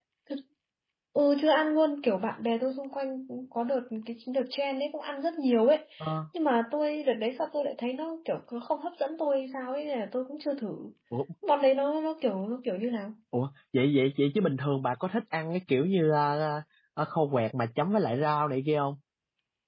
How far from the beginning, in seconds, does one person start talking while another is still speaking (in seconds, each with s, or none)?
none